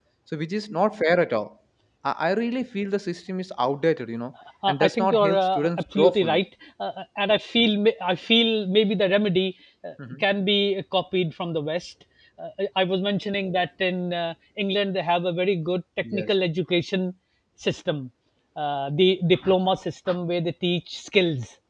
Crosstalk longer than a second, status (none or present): present